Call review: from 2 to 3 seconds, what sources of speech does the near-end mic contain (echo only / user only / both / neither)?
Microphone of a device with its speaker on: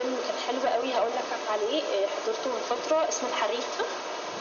echo only